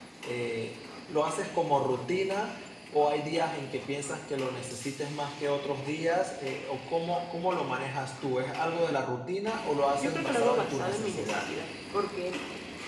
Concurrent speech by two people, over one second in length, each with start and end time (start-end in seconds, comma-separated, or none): 10.0-11.5